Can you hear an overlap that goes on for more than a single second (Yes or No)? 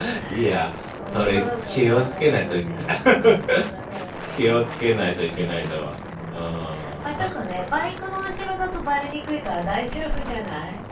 Yes